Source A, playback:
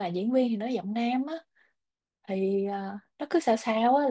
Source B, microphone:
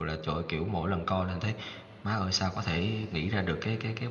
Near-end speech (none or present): present